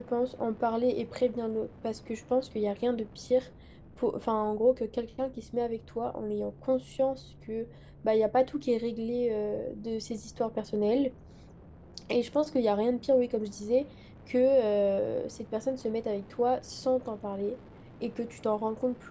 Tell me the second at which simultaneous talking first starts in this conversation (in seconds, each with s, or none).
none